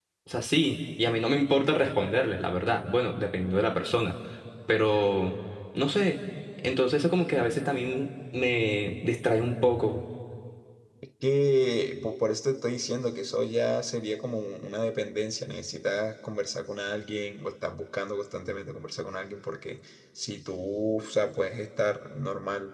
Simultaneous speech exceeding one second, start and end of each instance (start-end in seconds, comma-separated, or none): none